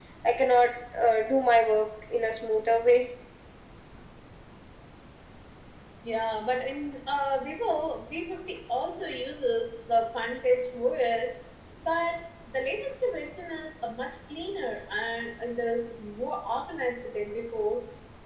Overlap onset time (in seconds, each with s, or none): none